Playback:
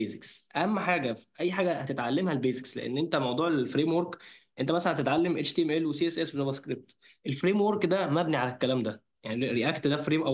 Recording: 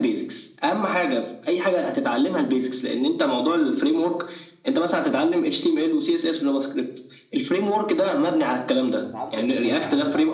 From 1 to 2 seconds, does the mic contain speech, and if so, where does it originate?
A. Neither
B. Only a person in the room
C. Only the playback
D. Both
C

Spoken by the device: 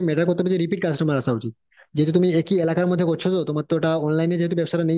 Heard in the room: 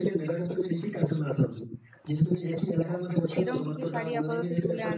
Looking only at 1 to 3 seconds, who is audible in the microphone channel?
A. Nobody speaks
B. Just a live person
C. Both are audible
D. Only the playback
D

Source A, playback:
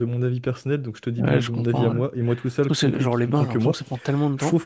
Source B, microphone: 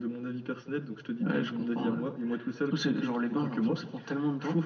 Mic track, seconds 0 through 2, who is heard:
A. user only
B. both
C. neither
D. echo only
D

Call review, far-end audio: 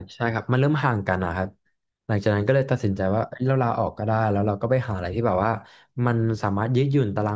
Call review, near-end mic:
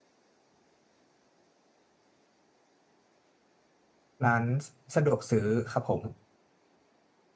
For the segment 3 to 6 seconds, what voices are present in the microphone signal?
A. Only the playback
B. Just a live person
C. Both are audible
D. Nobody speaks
B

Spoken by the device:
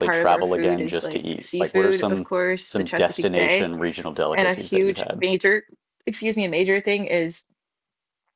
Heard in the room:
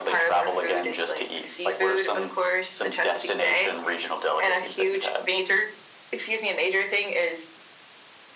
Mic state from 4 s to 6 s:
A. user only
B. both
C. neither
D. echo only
D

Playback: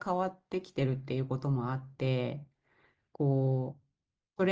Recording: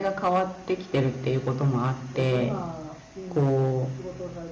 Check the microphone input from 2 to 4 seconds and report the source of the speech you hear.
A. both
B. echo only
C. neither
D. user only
A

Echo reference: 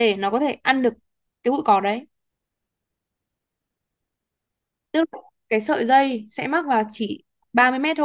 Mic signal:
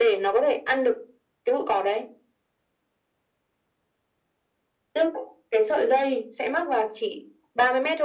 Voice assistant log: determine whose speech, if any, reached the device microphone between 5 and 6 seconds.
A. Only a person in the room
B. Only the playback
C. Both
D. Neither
B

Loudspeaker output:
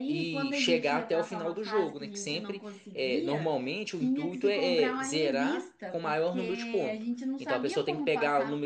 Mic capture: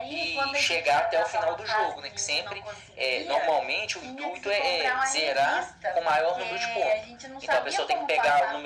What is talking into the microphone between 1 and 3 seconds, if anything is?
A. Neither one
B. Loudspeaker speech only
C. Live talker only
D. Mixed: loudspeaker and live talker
B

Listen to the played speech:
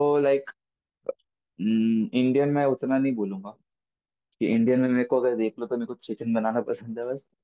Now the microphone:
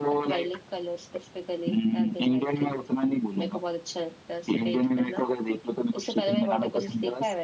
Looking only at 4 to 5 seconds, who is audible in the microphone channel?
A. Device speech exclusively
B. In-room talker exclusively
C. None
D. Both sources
D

